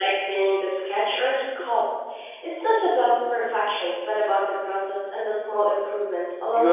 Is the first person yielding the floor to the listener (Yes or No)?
Yes